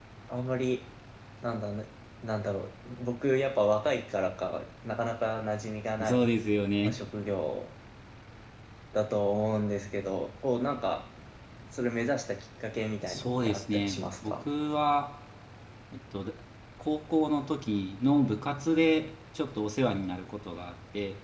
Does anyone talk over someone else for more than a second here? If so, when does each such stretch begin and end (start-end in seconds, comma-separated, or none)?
13.0-14.4